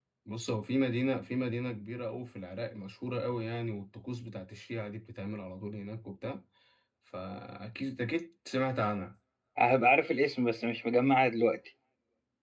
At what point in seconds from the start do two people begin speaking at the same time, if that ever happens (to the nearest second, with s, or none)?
none